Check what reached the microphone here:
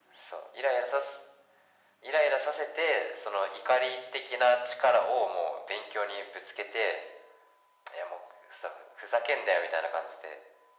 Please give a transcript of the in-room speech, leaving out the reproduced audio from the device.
none

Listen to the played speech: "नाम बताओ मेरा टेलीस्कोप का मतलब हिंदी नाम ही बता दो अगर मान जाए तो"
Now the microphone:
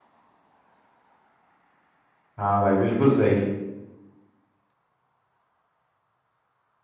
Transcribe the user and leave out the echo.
हाँ भाई बिल्कुल सही

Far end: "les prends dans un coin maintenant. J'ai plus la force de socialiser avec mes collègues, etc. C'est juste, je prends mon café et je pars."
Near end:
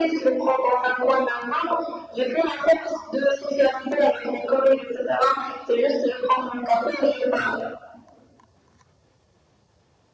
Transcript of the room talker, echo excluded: none

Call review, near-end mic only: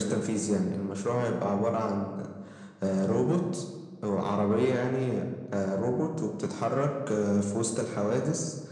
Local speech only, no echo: none

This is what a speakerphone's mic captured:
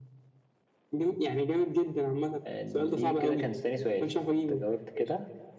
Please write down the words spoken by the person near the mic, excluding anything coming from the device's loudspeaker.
آه، دي كده كان تاني سؤال أنت جاوبت كده

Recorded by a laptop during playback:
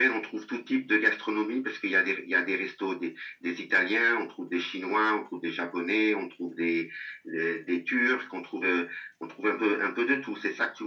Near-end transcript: none

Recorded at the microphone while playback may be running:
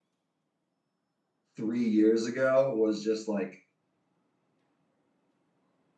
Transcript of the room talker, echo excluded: three years ago was just like

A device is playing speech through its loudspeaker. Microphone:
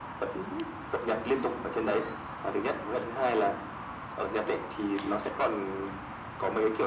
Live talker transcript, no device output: none

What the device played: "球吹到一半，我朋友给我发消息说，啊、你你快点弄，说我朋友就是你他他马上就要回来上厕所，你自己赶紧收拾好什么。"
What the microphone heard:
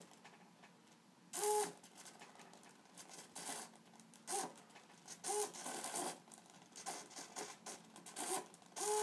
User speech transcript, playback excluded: none

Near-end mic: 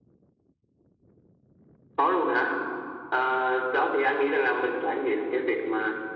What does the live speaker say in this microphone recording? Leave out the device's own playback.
none

